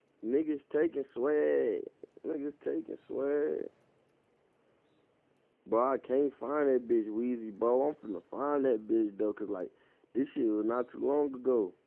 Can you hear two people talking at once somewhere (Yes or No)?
No